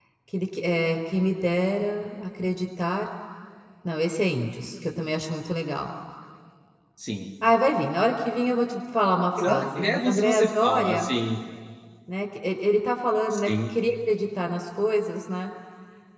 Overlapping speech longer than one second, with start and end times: 9.4-11.1

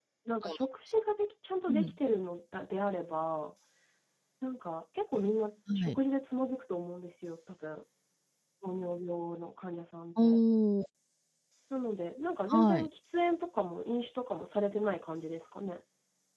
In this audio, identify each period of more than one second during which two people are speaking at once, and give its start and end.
none

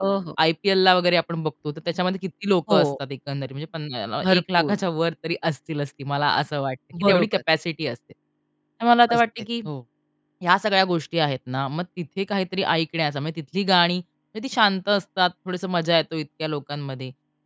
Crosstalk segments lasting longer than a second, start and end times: none

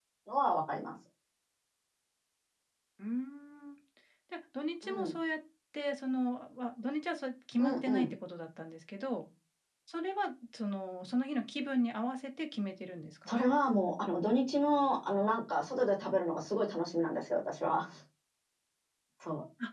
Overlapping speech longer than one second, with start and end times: none

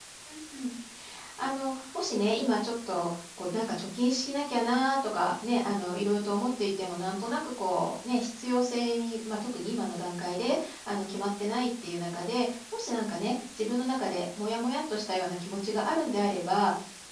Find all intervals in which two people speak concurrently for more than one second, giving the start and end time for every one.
none

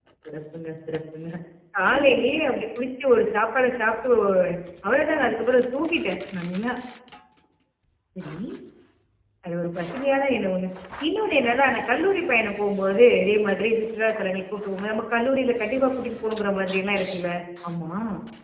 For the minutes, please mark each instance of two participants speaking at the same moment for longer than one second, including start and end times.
none

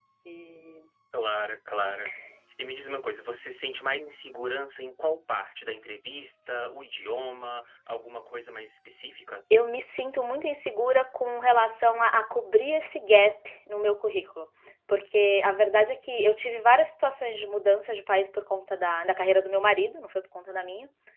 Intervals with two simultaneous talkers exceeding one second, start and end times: none

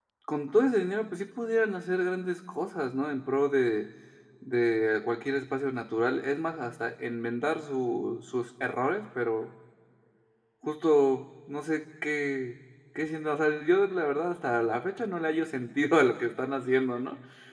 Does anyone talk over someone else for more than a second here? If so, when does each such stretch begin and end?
none

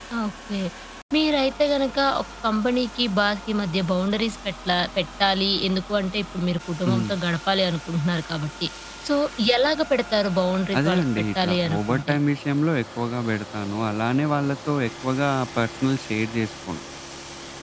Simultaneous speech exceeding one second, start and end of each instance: 10.8-12.1

